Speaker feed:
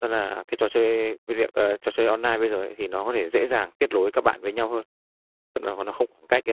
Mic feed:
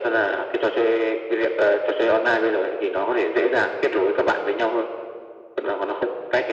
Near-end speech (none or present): none